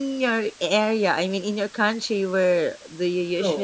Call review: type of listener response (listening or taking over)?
taking over